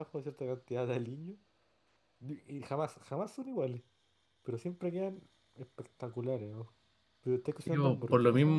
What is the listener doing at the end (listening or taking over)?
taking over